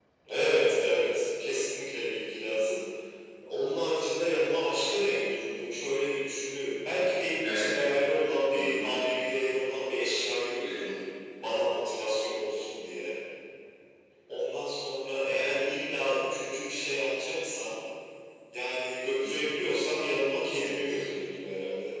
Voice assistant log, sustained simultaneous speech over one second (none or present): none